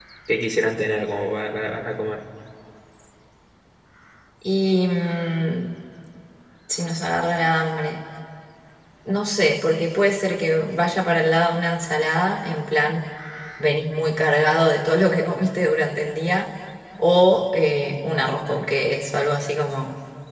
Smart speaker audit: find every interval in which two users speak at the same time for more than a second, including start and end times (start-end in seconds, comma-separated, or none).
none